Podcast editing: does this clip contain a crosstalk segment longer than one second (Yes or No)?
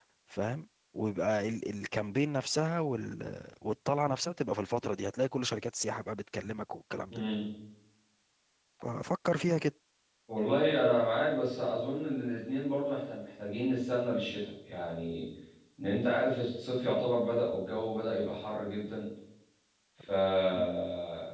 No